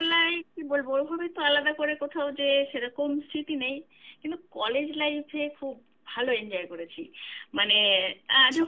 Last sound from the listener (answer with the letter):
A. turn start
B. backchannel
B